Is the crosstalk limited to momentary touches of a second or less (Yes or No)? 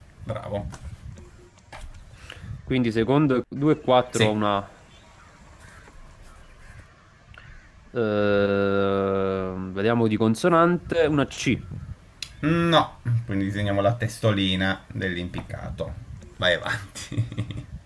Yes